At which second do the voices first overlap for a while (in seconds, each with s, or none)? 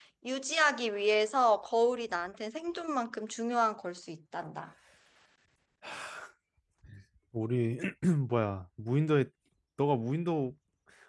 none